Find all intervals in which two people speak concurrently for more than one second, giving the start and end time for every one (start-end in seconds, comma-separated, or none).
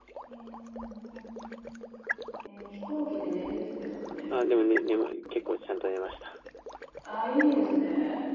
none